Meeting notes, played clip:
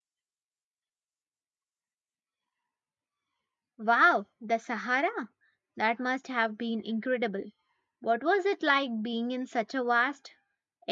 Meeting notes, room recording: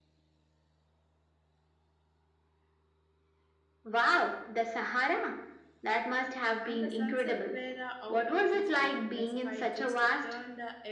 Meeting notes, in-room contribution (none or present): present